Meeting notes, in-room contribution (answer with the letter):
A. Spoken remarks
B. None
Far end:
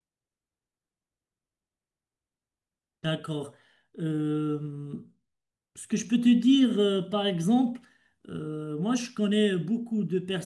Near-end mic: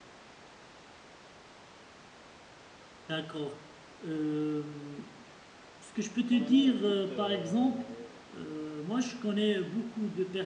A